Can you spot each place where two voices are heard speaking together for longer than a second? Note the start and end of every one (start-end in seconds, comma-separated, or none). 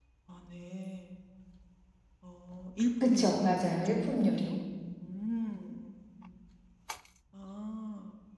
3.0-4.6